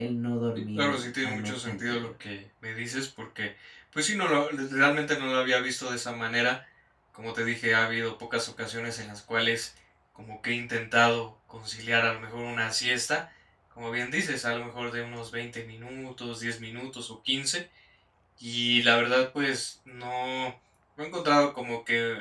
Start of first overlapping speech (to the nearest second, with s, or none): 1 s